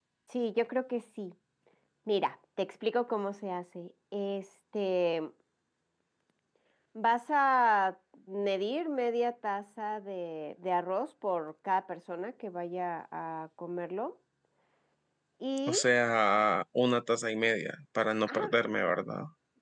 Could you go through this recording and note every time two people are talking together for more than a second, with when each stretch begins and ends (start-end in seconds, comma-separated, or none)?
none